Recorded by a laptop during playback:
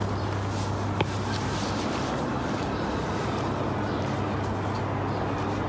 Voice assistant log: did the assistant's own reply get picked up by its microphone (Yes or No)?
No